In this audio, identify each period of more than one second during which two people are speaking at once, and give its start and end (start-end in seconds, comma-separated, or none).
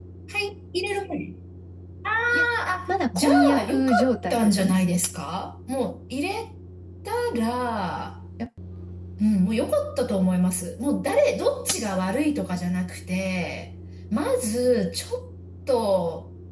2.9-4.8